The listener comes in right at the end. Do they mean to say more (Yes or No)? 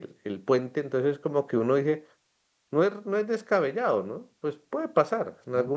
No